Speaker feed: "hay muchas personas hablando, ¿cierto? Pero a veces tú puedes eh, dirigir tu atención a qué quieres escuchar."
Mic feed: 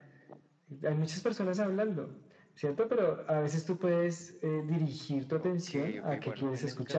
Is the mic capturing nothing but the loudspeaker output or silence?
No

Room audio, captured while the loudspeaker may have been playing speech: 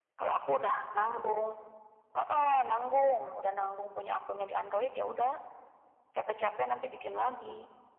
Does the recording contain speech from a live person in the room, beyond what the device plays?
No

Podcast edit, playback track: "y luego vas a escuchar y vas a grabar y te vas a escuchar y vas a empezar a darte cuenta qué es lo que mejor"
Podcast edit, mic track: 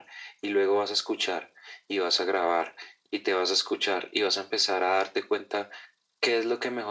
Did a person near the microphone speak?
No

